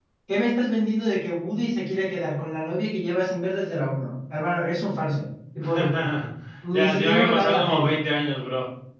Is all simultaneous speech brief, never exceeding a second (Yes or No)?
No